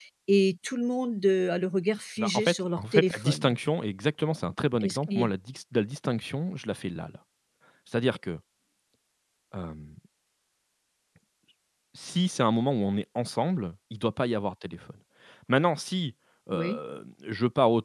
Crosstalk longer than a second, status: present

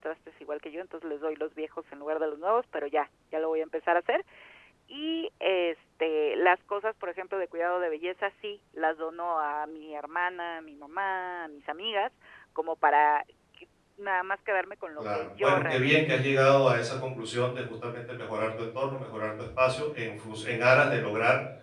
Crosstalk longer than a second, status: present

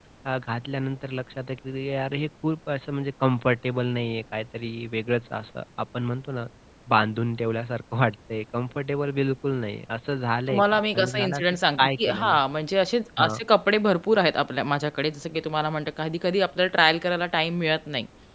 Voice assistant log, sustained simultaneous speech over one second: present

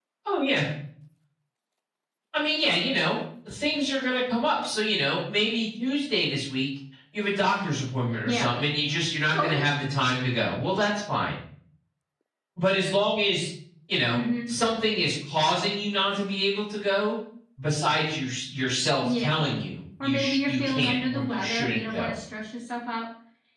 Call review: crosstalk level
present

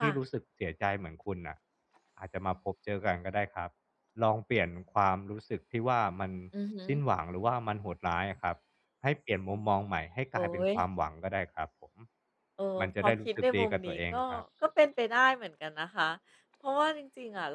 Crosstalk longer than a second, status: present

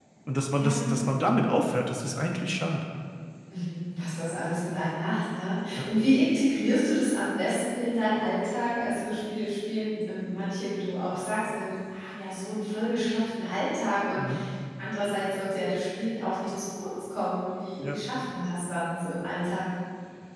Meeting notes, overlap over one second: none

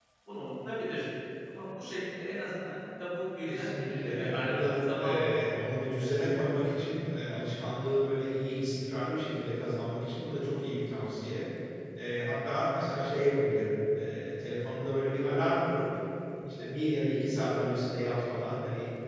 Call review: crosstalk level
present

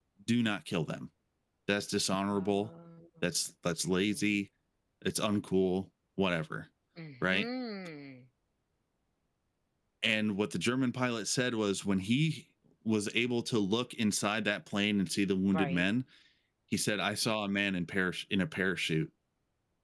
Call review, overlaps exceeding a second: none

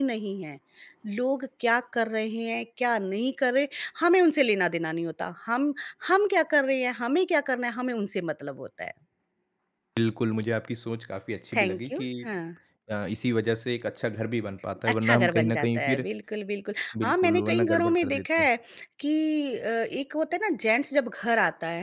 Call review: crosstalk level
present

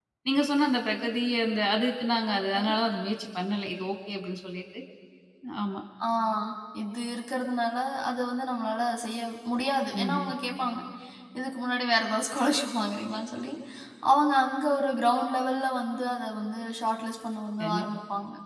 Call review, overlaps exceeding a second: none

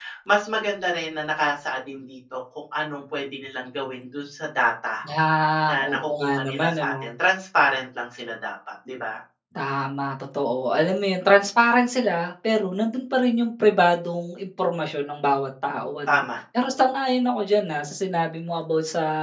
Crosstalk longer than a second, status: present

